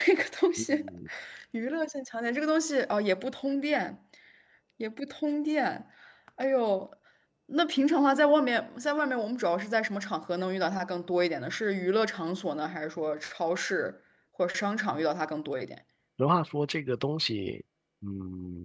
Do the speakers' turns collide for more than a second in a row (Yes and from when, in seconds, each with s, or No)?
No